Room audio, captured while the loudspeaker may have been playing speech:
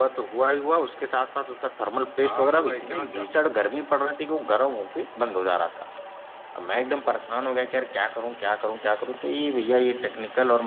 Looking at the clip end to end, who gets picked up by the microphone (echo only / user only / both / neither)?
both